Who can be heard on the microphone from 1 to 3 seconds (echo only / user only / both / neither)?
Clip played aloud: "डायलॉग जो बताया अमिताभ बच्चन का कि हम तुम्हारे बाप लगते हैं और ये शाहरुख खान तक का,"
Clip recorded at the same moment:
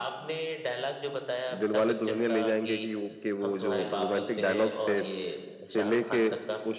both